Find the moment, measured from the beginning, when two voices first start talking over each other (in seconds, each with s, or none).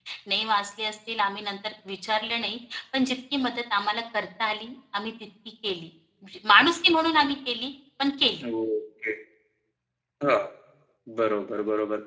none